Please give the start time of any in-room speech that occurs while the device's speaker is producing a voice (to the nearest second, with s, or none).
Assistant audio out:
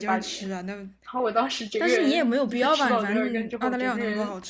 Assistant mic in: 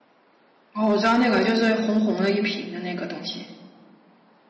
1 s